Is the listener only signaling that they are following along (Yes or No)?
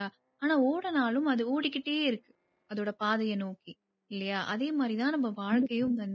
Yes